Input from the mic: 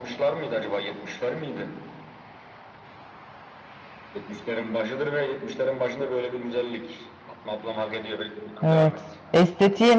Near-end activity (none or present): present